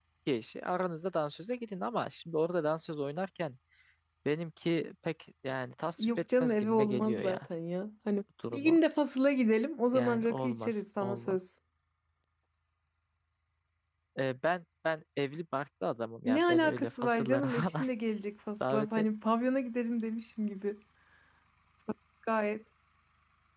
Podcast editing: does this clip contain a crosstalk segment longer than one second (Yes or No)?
Yes